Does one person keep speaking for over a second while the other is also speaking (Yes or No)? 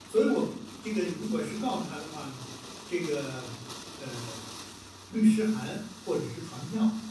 No